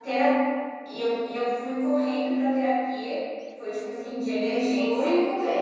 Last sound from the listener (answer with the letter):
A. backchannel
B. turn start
B